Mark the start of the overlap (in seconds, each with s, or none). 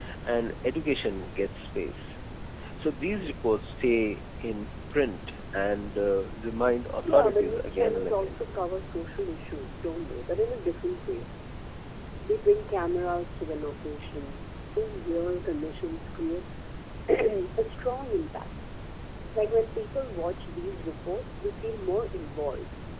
7.0 s